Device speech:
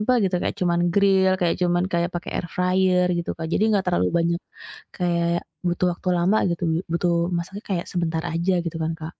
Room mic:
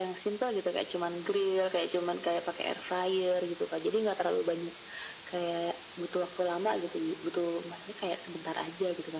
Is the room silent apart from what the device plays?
Yes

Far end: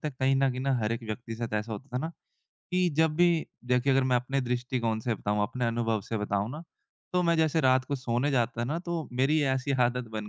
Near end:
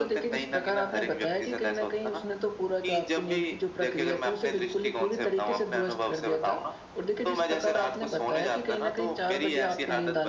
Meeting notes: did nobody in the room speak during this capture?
No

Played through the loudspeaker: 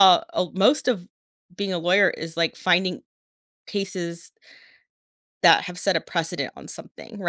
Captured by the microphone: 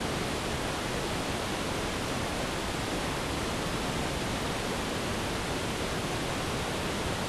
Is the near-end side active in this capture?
No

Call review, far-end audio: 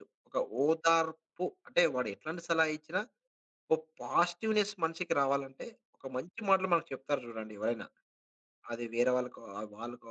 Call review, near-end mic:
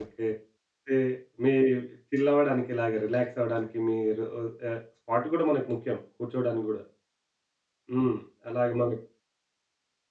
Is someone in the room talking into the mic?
Yes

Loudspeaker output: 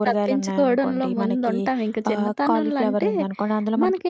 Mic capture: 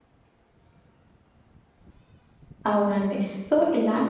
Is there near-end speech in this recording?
Yes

